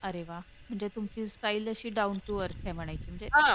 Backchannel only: No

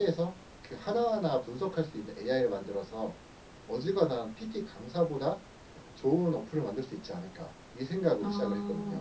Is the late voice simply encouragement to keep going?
No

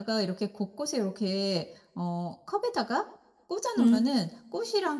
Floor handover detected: No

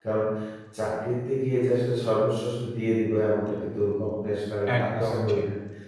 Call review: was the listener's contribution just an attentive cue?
Yes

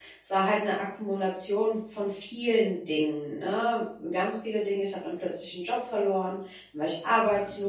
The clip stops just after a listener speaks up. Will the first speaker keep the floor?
Yes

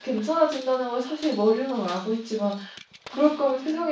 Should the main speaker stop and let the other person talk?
No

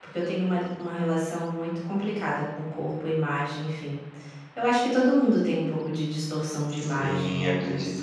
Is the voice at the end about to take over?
Yes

